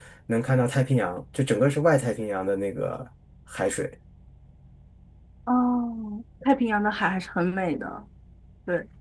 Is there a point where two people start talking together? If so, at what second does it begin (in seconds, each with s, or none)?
none